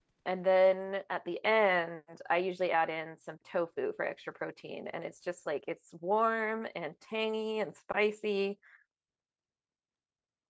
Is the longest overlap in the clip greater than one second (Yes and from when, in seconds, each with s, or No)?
No